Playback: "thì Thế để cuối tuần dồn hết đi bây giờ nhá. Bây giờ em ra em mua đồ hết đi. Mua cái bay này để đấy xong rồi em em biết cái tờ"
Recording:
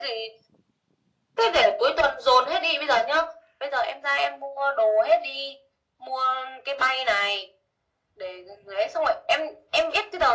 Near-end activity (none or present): none